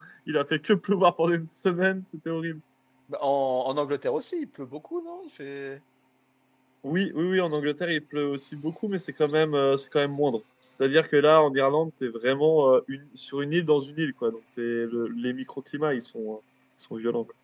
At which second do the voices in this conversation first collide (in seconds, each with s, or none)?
none